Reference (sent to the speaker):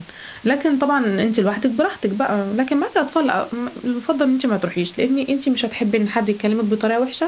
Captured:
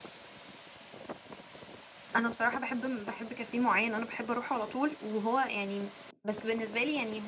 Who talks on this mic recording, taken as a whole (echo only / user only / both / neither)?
user only